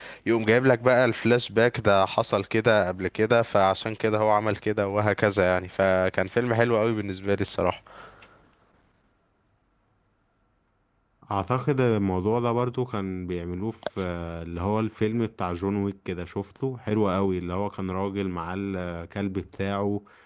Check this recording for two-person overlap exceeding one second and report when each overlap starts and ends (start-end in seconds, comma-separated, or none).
none